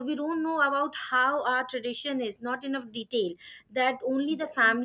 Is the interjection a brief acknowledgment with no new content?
Yes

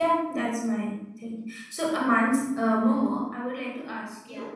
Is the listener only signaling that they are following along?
Yes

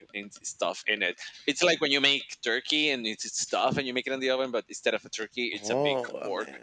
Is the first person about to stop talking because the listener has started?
Yes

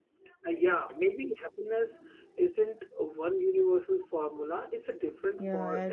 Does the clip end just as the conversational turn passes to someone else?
Yes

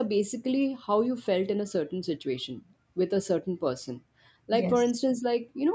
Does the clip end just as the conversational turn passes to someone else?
No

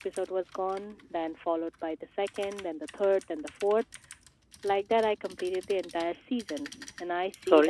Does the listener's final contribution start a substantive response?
Yes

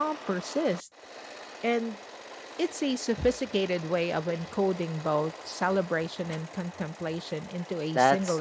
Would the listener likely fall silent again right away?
No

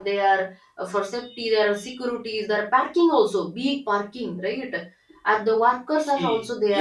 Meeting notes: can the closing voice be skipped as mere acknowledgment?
No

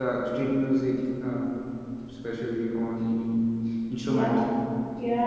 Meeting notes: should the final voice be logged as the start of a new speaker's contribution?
Yes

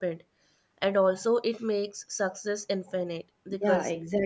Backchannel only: No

